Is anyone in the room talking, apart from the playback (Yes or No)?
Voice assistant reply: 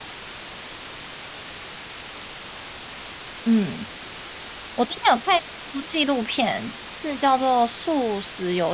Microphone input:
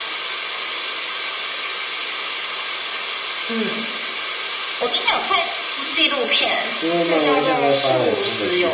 Yes